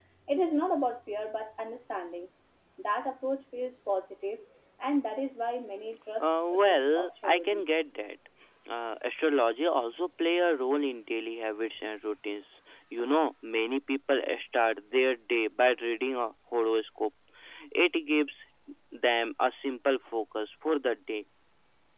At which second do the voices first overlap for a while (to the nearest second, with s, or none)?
6 s